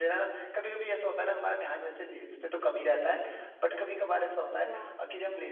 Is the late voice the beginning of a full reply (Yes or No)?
No